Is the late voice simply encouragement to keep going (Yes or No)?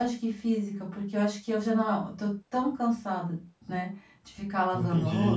No